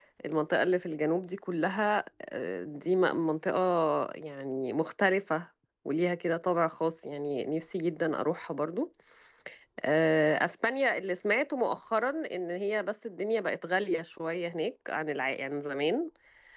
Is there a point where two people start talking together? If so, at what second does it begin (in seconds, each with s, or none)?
none